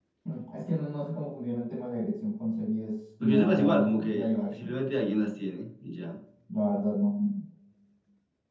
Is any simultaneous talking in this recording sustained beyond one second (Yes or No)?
Yes